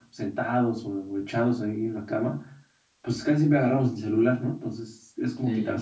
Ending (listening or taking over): listening